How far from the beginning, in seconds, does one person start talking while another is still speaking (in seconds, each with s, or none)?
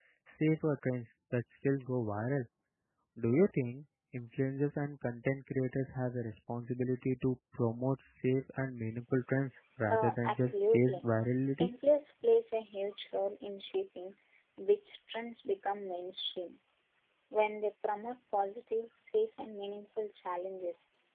9.9 s